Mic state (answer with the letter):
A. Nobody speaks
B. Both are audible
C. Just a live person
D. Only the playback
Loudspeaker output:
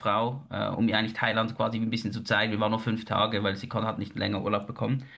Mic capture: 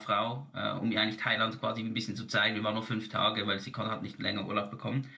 D